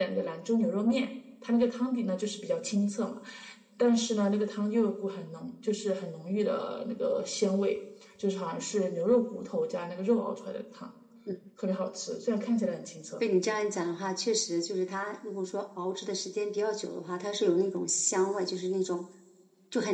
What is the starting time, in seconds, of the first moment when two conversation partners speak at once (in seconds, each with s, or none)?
none